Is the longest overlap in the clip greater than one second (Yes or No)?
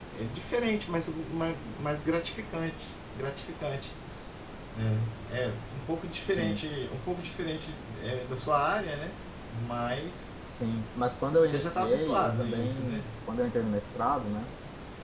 Yes